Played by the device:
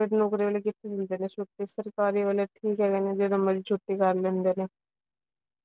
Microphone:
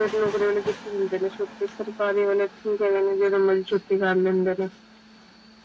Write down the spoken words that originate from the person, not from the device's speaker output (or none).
none